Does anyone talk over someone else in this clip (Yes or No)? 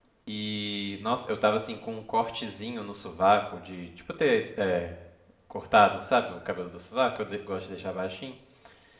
No